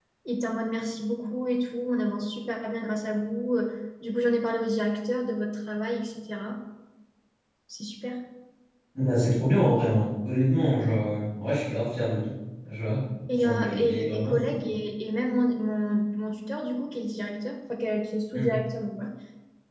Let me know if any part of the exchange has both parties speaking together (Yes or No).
Yes